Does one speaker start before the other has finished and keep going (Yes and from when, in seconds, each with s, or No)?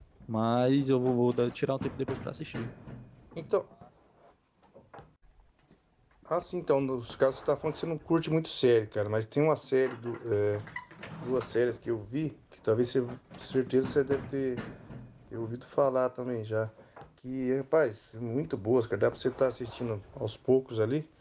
No